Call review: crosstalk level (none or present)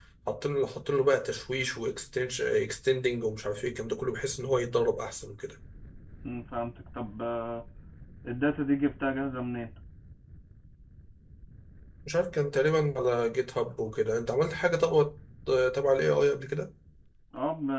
none